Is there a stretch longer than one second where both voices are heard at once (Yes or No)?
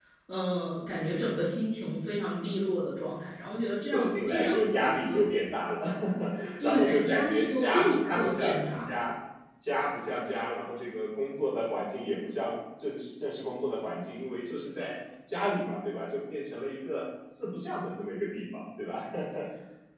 Yes